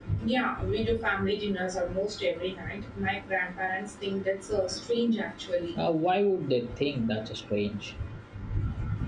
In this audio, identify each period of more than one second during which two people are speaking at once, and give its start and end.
none

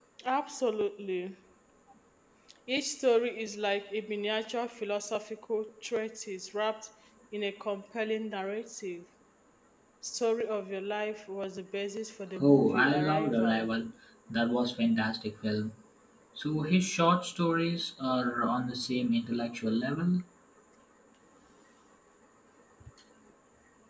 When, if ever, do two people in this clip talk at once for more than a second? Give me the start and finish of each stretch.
12.4-13.7

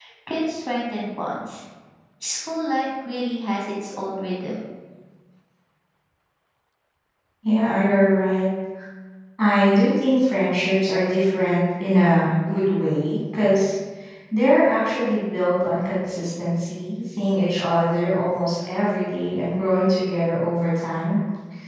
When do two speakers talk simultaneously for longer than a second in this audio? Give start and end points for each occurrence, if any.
none

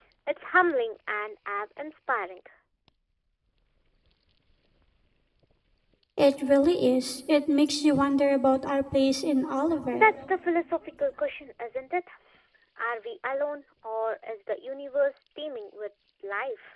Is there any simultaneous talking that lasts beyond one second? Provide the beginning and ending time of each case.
none

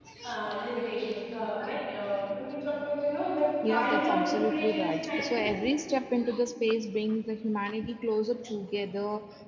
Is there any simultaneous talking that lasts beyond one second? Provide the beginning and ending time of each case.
3.7-5.5

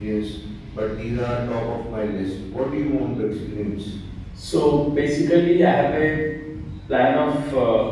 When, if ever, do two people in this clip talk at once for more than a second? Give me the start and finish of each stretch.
none

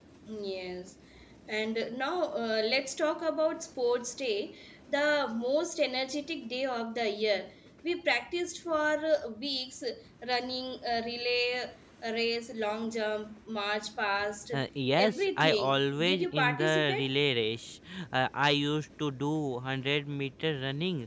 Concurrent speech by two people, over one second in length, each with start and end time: 14.9-17.0

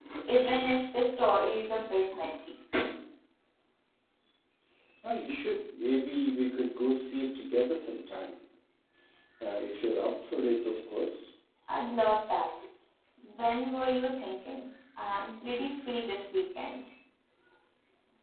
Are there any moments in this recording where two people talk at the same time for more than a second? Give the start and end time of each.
none

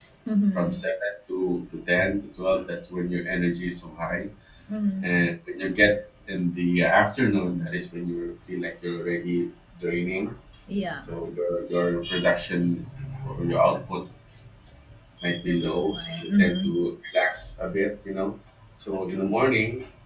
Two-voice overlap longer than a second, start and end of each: 15.4-16.7

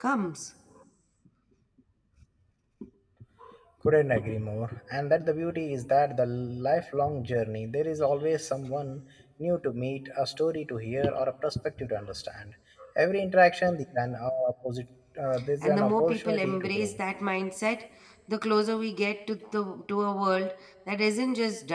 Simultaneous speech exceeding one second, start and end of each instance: 15.6-16.9

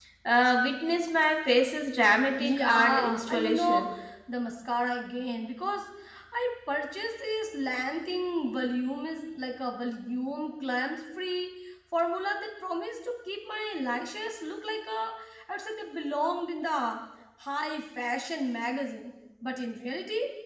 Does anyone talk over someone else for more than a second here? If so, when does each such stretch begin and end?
2.4-3.8

